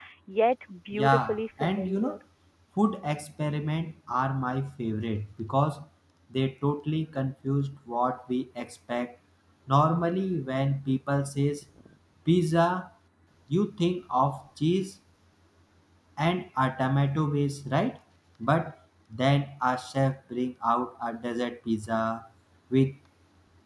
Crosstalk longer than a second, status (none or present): present